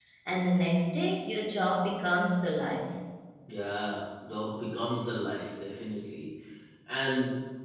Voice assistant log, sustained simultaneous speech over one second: none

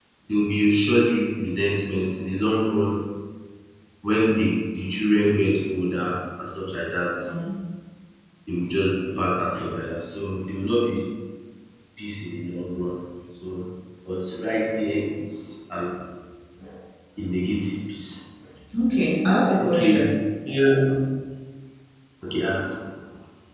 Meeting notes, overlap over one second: none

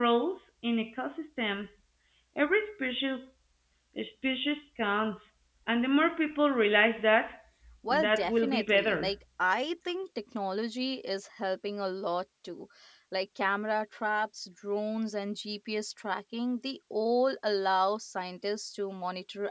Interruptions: present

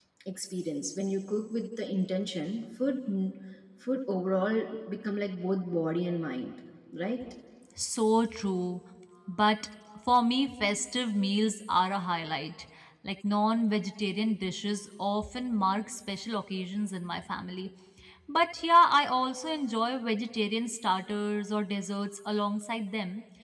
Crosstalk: none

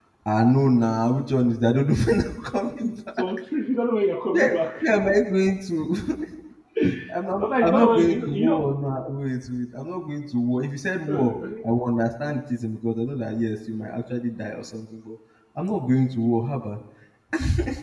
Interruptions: present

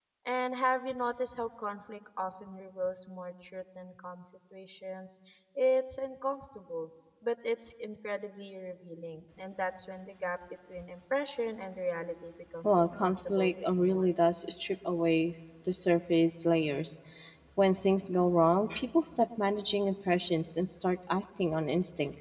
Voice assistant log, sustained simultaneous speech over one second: present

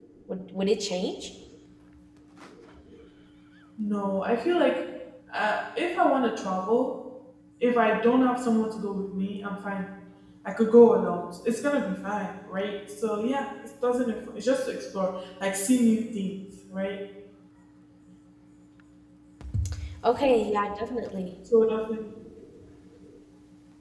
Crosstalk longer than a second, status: none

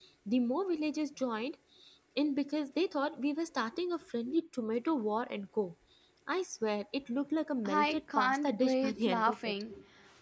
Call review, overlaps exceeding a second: present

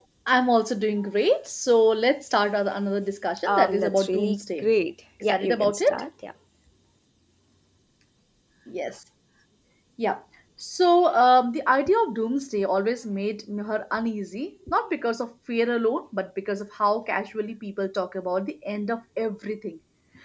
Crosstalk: present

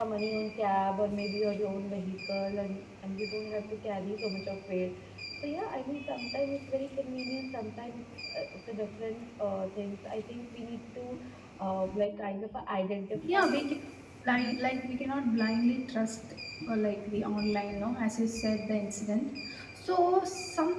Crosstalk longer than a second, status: none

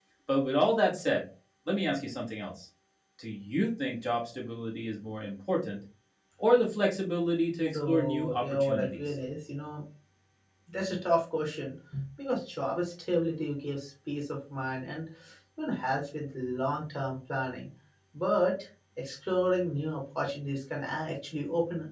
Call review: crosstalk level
present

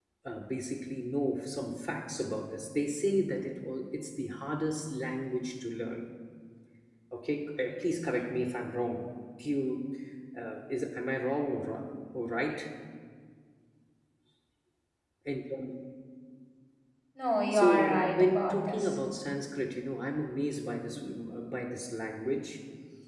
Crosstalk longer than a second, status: present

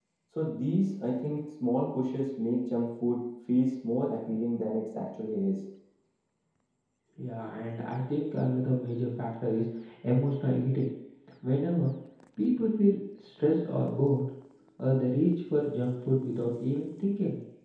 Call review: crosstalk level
none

